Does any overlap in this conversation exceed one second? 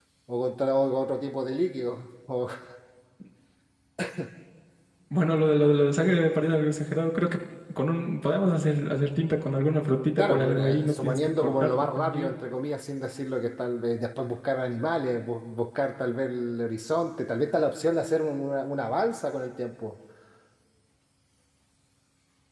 Yes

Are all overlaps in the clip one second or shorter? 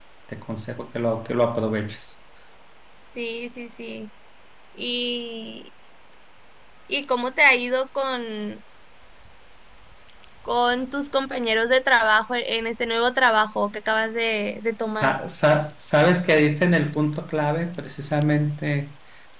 Yes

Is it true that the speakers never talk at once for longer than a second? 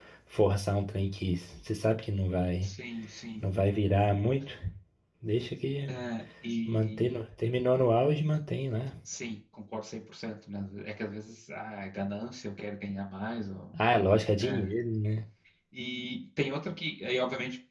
Yes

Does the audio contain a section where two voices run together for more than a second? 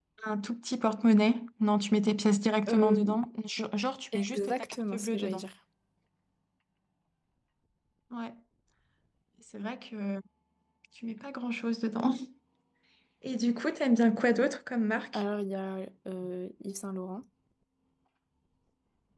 Yes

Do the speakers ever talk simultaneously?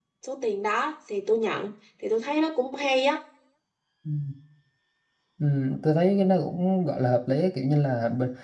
No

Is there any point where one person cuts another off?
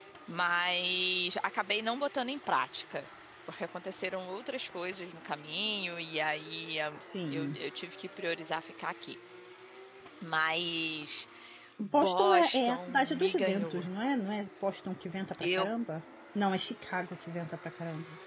Yes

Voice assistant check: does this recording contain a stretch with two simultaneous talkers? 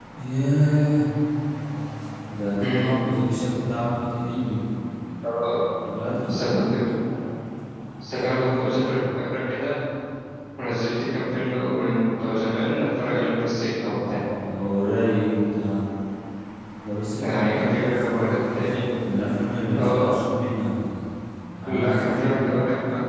Yes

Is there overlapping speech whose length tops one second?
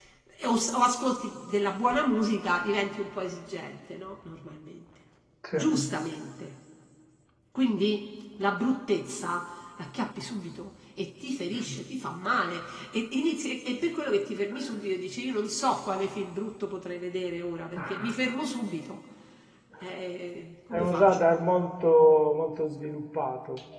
No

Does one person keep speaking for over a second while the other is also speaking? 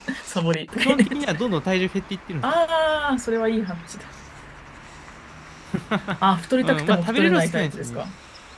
Yes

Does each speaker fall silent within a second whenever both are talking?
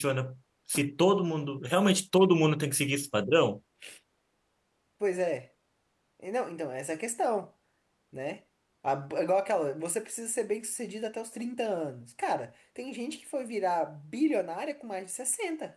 Yes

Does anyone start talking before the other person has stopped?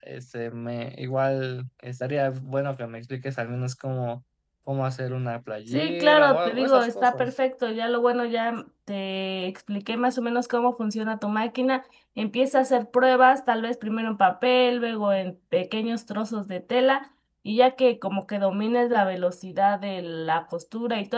Yes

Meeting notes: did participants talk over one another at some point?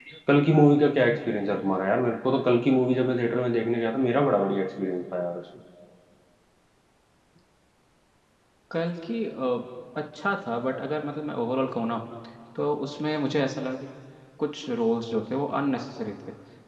No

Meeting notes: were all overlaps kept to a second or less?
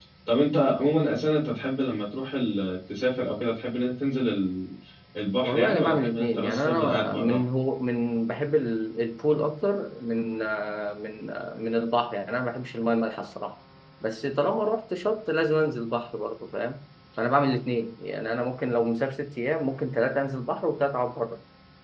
No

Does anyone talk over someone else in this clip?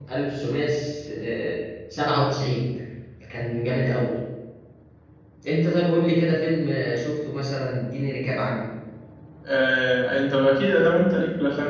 No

